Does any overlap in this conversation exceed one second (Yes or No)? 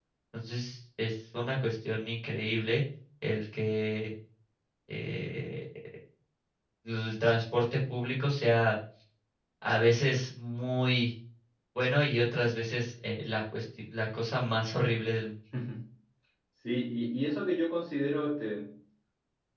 No